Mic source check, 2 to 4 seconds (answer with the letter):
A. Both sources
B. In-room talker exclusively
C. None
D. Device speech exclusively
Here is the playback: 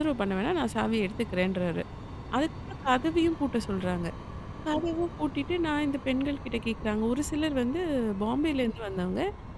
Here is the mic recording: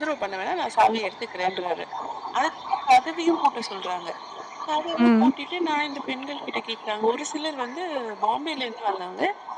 D